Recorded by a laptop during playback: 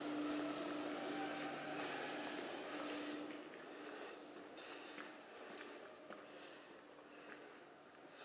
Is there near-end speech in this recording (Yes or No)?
No